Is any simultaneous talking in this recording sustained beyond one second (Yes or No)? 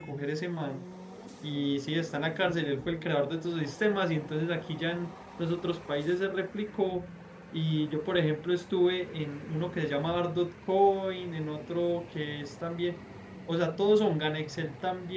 No